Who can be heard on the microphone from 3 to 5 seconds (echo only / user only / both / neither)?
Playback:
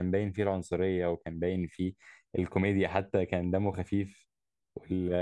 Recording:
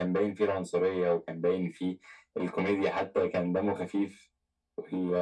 echo only